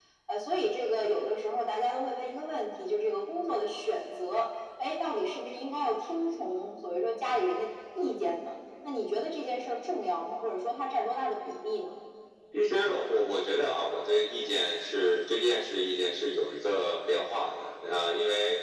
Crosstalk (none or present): none